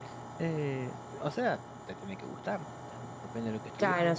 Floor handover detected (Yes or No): Yes